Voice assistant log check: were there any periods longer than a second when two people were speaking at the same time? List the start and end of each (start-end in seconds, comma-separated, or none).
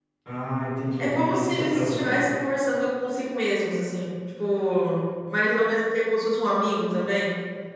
1.0-2.3